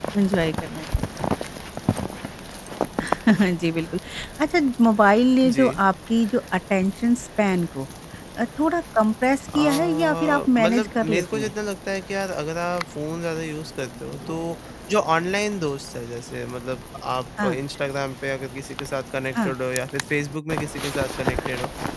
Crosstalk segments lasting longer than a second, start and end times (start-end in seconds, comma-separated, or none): 9.6-11.5